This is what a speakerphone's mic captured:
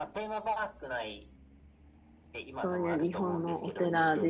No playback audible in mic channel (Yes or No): No